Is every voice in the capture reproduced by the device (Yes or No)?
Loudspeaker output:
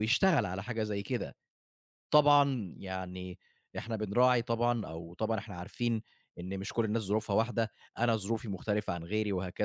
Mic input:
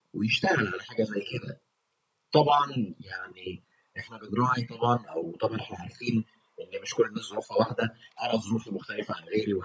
Yes